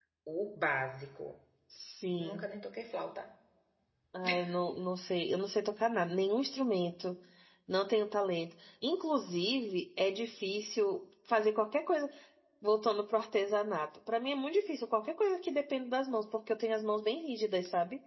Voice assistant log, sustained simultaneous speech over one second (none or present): none